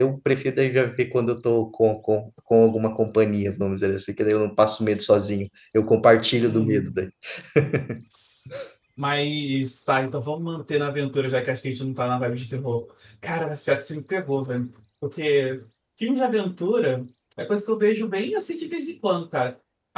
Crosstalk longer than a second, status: none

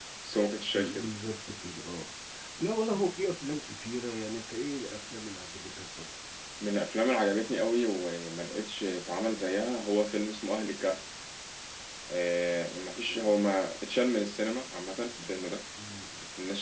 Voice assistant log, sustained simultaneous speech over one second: none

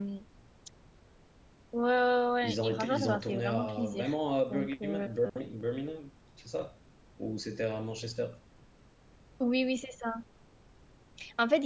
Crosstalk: present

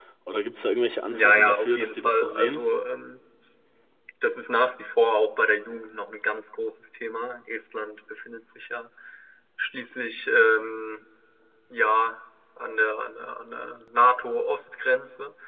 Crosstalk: present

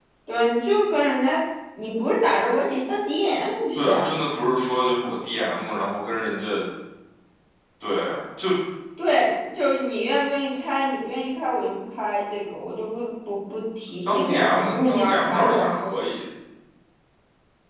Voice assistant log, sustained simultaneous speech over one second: present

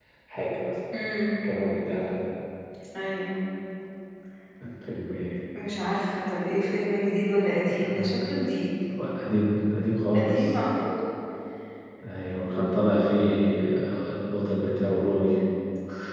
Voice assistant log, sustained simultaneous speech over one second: none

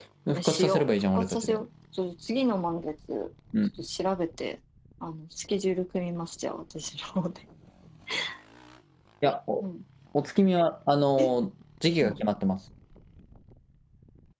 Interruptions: present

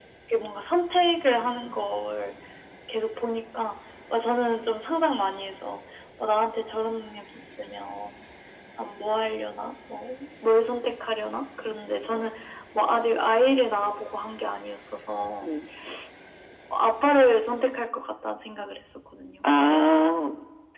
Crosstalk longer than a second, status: none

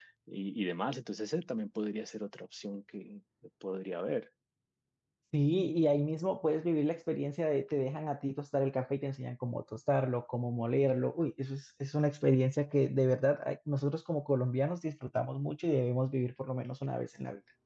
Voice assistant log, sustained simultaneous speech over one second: none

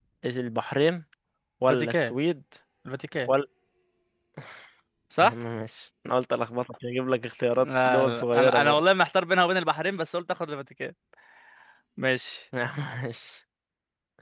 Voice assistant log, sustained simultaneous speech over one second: present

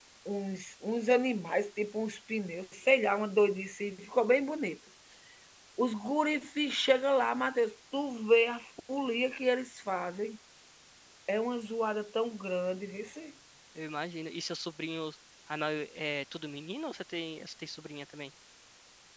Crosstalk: none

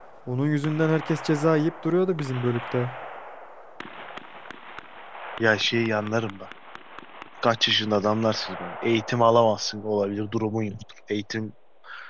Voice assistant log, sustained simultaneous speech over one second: none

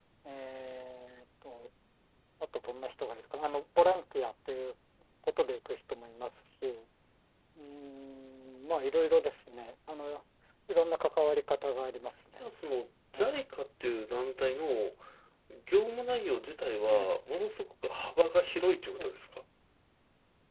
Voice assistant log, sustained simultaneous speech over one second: none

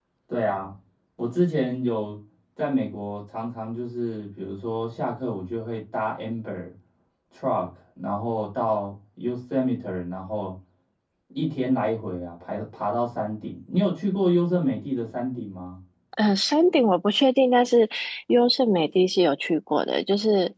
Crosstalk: none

